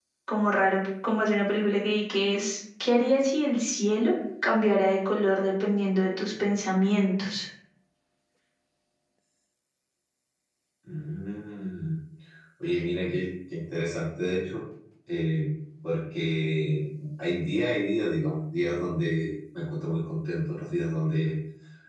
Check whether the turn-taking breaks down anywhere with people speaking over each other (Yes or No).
No